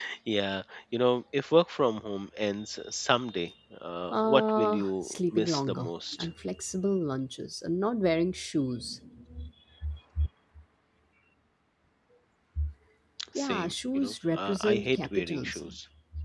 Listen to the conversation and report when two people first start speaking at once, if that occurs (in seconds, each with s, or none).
4.1 s